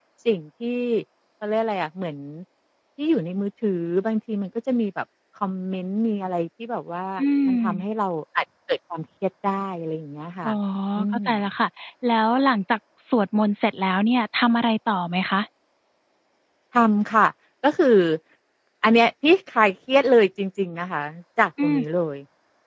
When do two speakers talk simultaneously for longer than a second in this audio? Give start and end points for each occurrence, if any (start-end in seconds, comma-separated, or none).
none